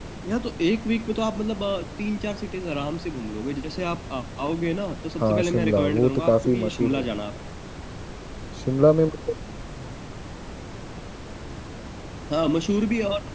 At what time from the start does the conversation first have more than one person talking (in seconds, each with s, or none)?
5.2 s